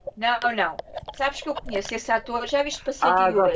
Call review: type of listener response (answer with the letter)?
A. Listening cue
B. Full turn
B